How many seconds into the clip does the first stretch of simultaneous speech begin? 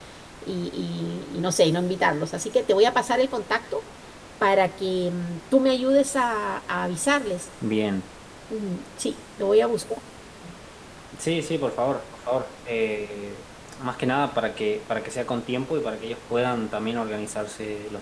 none

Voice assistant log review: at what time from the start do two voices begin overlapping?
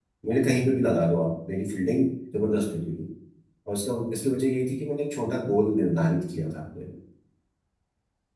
none

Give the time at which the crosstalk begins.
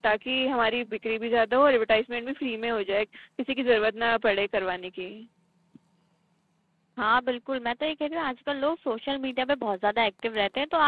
none

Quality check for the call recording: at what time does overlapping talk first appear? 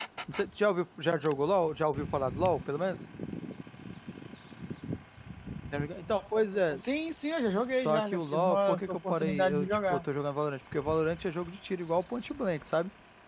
8 s

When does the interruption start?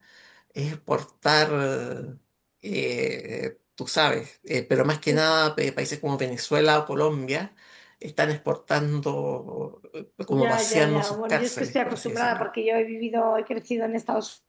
10 s

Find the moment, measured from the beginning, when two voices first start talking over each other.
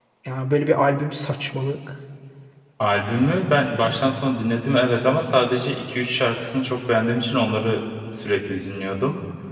none

